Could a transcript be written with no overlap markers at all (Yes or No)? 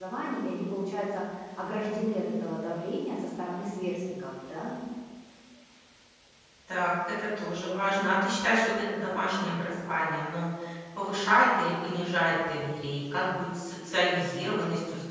Yes